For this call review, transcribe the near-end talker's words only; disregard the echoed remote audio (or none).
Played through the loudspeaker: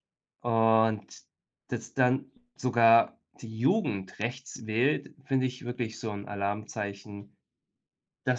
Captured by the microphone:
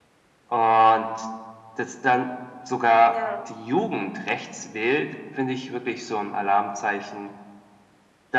Ja.